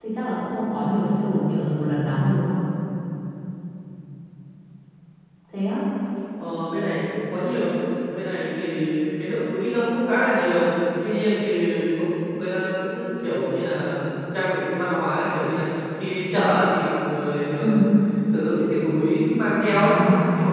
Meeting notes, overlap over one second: none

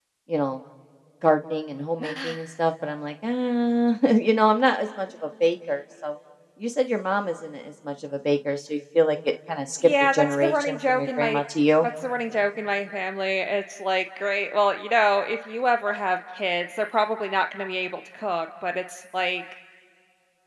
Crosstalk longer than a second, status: present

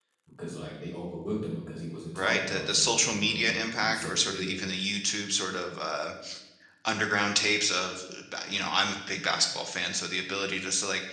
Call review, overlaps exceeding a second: present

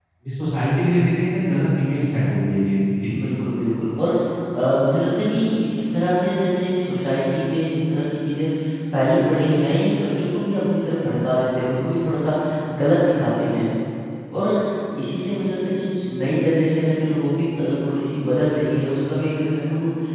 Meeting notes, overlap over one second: none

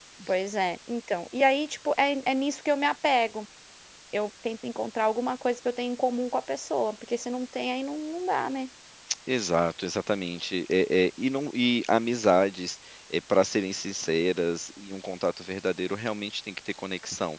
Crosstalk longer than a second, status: none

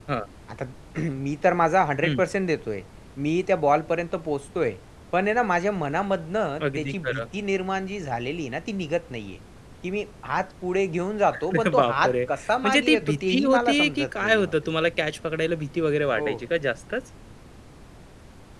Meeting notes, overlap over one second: present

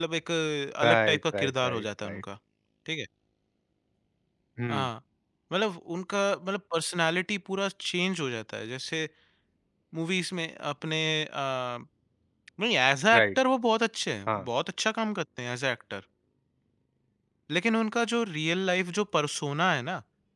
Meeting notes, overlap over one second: present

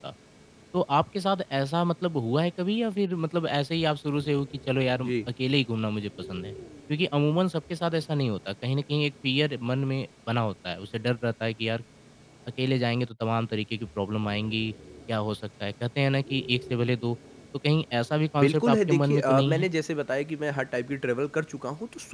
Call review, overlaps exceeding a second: present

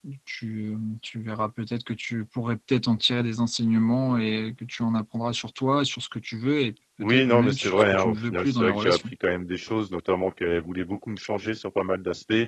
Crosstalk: present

